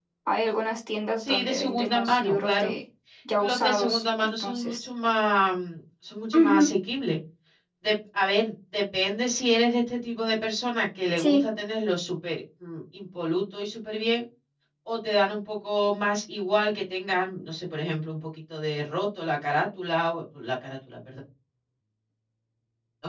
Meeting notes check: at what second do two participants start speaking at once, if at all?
1.2 s

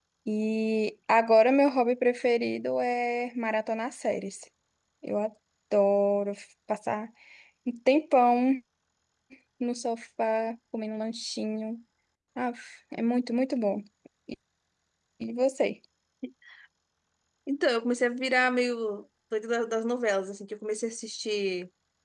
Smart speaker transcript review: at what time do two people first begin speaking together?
none

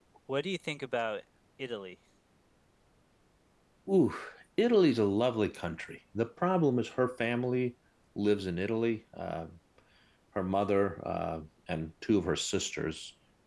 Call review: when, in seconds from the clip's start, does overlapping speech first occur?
none

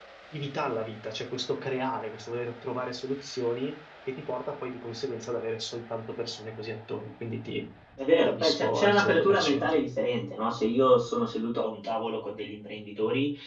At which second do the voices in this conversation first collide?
8.2 s

